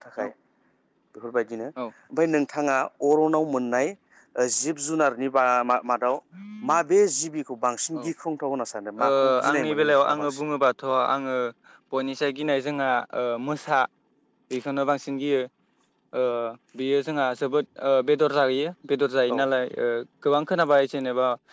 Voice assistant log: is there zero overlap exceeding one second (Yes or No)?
No